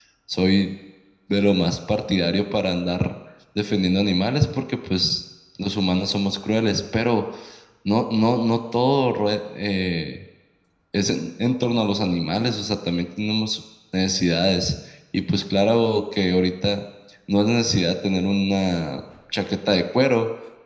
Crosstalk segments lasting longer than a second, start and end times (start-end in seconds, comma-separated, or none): none